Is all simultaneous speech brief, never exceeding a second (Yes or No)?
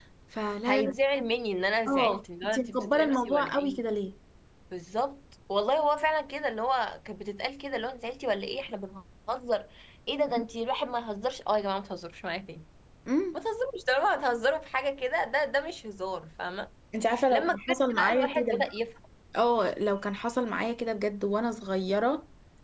No